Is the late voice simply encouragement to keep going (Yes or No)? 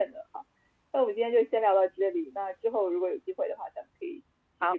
No